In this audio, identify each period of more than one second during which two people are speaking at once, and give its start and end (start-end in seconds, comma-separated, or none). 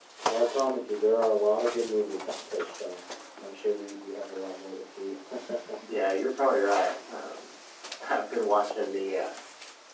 none